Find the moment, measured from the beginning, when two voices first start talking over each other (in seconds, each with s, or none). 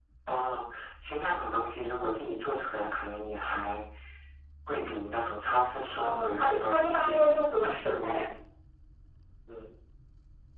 5.9 s